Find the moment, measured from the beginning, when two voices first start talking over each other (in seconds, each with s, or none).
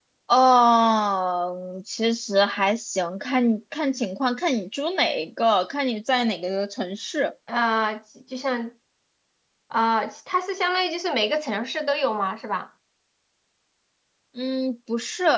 none